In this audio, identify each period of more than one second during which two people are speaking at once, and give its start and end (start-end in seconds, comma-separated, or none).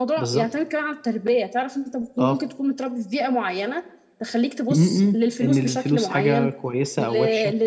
4.7-6.5